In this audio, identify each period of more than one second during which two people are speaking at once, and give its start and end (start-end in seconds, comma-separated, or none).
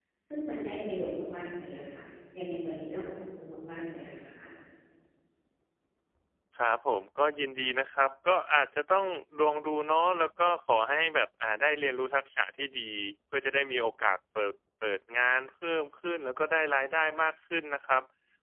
none